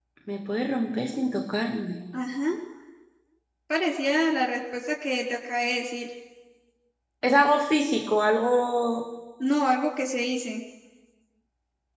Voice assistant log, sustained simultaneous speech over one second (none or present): none